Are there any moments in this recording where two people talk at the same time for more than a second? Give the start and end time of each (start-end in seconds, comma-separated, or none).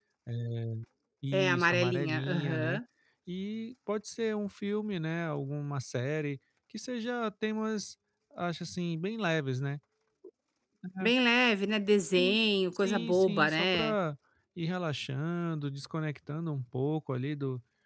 1.3-2.8, 12.8-13.9